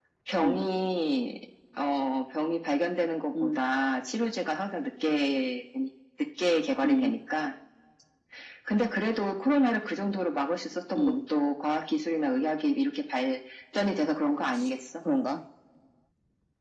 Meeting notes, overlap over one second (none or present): none